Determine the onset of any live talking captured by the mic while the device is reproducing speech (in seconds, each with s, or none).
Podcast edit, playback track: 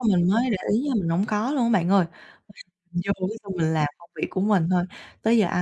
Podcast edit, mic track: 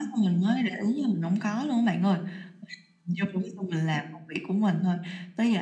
none